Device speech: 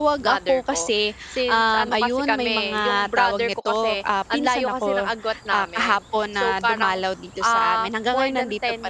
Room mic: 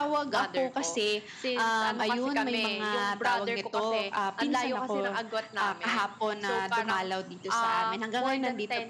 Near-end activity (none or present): none